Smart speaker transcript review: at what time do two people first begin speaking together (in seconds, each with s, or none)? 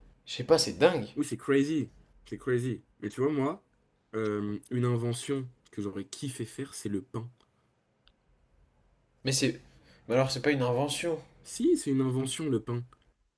none